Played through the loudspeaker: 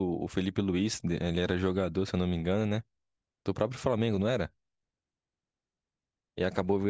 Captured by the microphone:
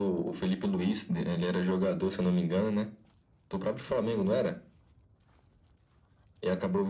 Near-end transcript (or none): none